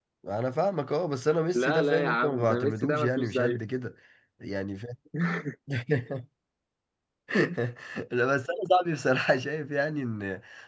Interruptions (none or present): present